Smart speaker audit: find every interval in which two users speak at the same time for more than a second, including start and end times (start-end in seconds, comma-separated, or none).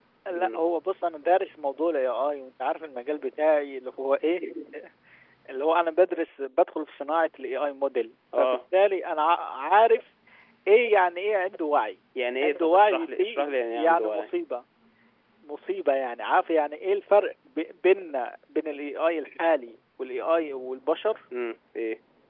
12.4-14.3